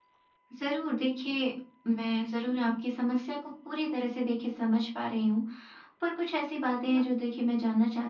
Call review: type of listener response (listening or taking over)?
listening